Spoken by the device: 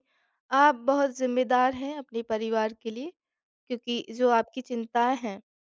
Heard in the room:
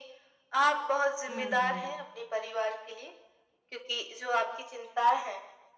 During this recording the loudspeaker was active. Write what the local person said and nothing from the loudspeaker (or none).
हुँ।